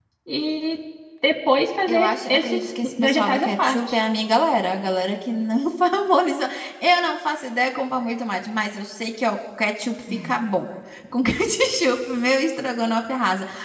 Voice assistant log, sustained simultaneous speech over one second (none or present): present